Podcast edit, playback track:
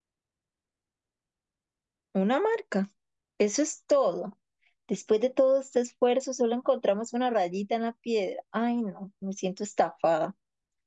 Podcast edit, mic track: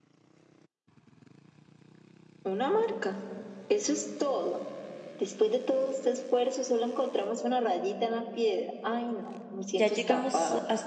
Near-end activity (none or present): present